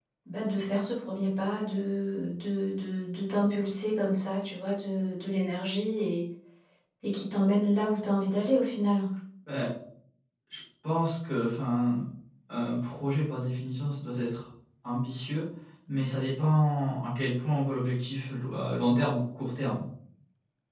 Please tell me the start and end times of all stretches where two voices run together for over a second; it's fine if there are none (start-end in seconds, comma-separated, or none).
none